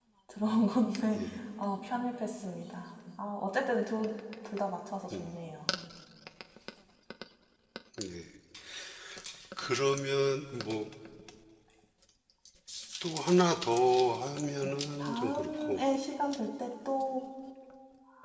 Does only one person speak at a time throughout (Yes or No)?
No